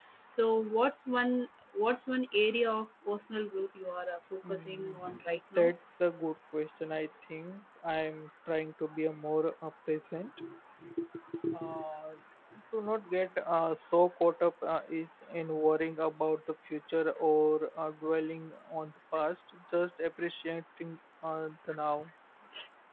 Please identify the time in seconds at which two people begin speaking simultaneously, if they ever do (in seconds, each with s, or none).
4.4 s